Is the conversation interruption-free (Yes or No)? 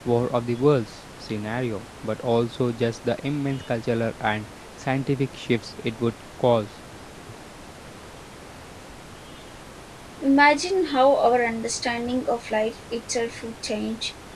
Yes